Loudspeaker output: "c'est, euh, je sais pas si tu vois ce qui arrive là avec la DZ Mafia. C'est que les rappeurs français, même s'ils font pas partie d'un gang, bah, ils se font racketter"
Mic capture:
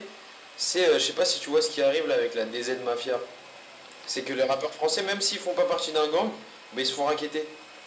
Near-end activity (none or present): none